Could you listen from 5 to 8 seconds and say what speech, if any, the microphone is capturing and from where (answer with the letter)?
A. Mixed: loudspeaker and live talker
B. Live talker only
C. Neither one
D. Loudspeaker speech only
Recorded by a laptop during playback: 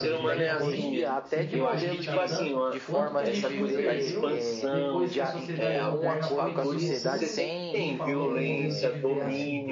A